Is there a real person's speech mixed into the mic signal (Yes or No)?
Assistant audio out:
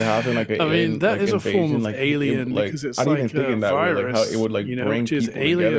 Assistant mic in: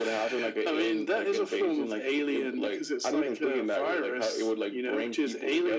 No